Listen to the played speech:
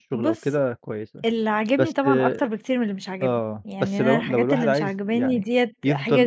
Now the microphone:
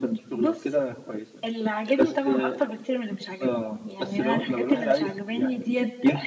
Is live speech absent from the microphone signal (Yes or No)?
Yes